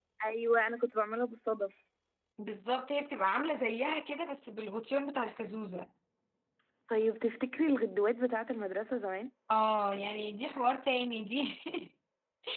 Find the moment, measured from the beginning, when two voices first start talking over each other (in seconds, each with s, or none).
none